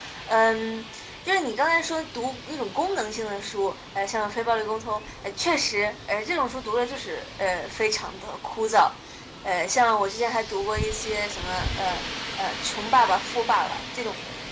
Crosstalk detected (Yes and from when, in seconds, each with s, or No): No